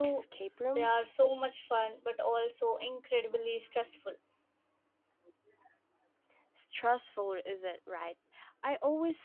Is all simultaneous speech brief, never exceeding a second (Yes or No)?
Yes